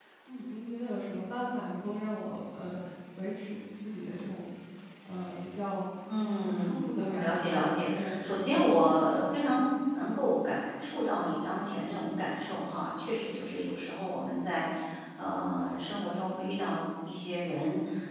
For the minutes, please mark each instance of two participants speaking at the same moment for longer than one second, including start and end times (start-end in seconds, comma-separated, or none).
6.4-8.7